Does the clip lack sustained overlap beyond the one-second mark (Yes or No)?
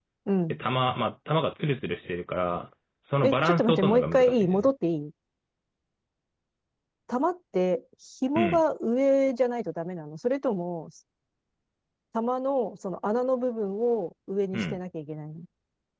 No